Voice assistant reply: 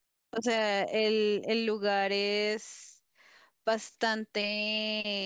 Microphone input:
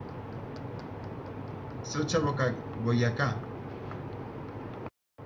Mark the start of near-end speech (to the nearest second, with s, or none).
2 s